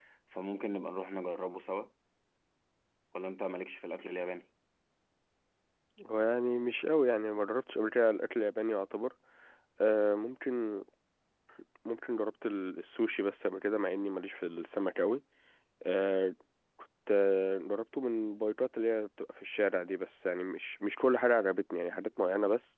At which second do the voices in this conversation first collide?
none

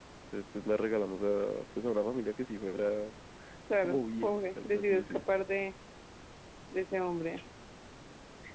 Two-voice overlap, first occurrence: 3.7 s

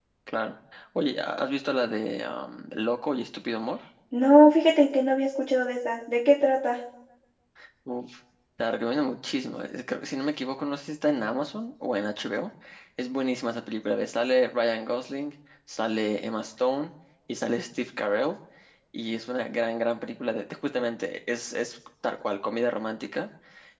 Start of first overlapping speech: none

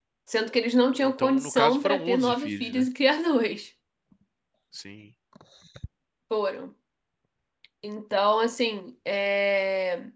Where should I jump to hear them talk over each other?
1.0 s

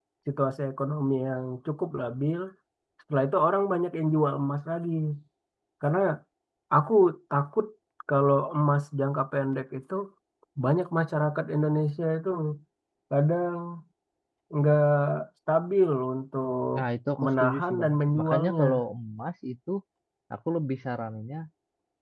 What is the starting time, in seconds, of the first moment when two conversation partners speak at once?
17.2 s

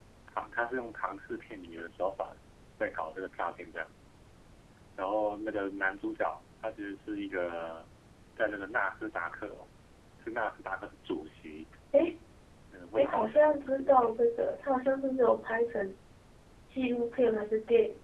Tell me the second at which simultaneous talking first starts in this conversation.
13.0 s

